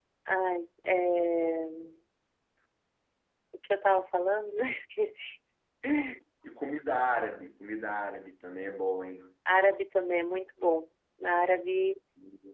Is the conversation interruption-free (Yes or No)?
Yes